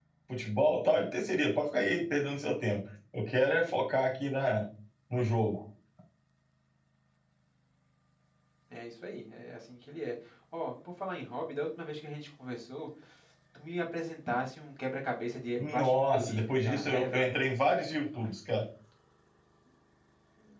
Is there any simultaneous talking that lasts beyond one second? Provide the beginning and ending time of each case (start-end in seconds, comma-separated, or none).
15.6-17.3